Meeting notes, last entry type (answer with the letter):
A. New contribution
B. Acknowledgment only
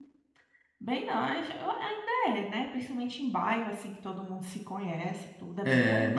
A